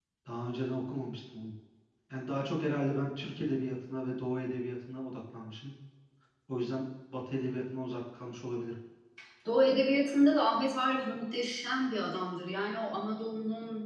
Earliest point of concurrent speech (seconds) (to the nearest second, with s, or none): none